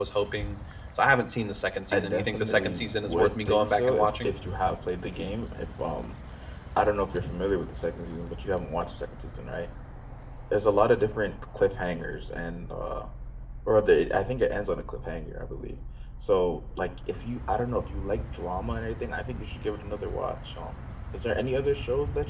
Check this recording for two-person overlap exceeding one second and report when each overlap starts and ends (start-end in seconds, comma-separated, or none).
1.9-4.3